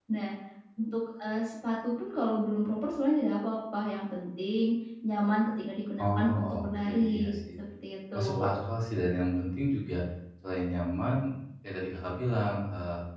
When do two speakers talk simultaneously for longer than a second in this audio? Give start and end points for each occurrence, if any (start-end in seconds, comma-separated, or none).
6.0-7.3